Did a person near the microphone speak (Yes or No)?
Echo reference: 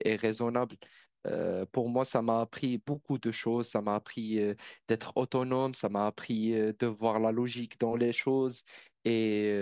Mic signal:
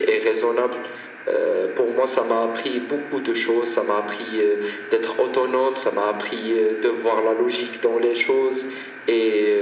No